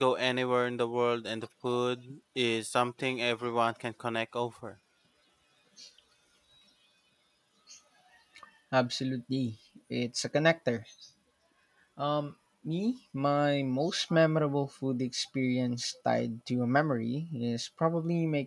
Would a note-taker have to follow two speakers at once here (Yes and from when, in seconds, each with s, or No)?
No